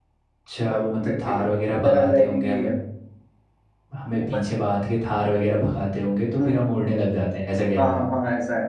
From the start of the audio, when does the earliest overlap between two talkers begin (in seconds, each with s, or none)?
0.7 s